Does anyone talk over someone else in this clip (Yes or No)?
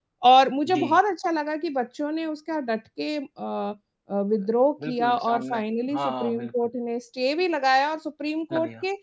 Yes